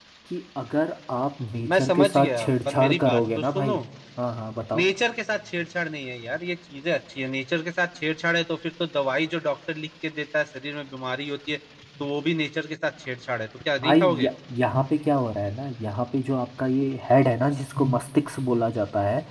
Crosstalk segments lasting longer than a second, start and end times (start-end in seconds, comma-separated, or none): 1.7-3.7